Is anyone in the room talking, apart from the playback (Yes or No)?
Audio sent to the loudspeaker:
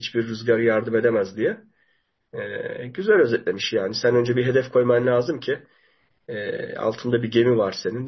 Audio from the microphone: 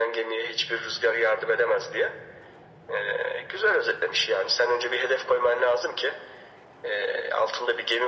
No